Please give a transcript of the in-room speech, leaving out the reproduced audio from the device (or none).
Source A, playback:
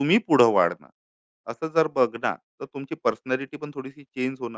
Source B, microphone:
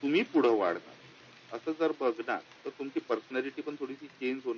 none